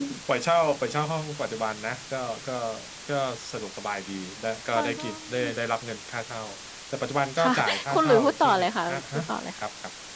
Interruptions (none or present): present